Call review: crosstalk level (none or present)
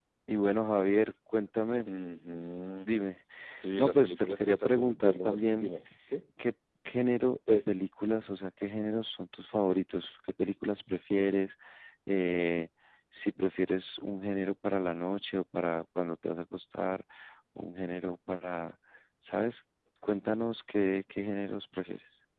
present